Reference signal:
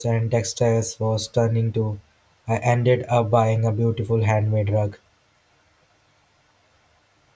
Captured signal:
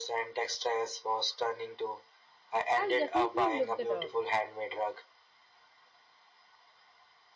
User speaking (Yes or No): Yes